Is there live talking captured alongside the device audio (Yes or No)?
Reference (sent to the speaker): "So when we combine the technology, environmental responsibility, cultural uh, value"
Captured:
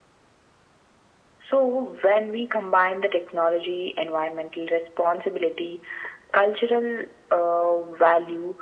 No